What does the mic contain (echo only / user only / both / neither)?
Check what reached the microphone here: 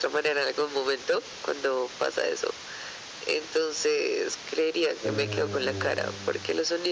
both